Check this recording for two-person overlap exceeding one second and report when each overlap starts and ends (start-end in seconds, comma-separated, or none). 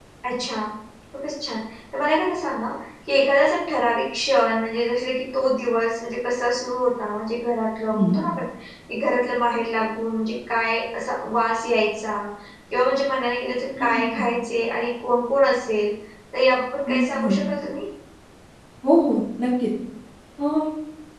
none